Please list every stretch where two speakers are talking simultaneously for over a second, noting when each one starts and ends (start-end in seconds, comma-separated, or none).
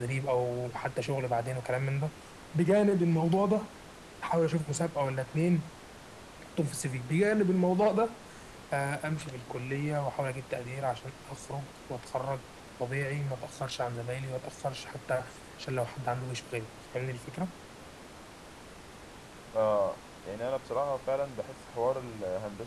none